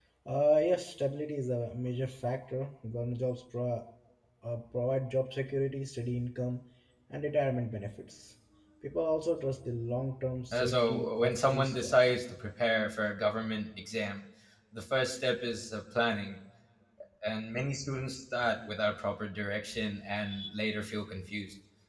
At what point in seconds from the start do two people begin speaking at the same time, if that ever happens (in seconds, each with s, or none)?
10.5 s